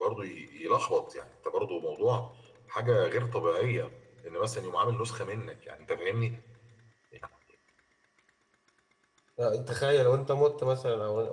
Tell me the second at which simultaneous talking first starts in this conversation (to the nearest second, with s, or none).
none